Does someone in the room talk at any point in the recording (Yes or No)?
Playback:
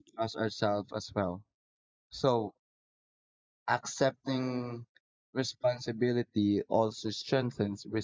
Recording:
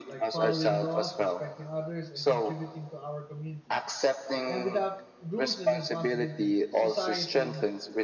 Yes